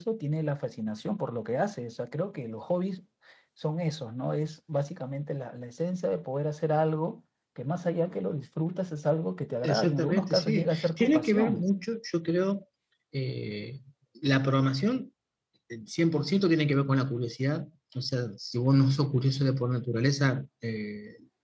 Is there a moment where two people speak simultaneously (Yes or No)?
Yes